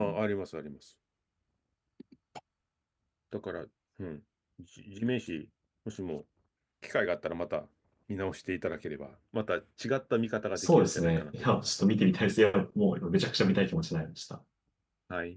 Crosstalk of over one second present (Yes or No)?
Yes